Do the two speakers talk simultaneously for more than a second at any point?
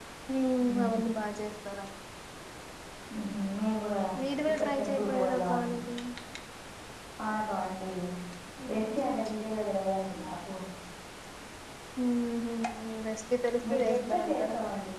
Yes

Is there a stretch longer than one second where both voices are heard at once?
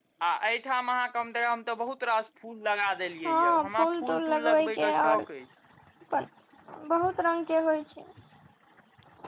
Yes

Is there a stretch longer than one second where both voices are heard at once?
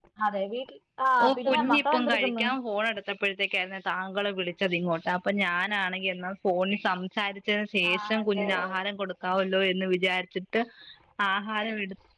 Yes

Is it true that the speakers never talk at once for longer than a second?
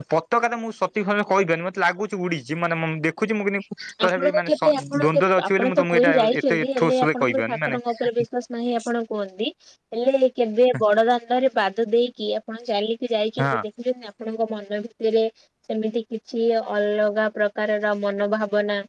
No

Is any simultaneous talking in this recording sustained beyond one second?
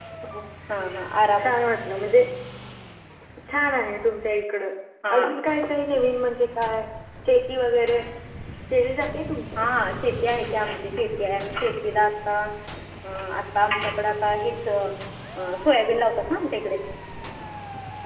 No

